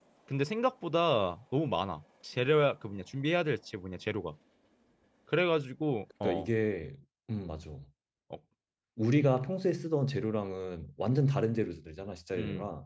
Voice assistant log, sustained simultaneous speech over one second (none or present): none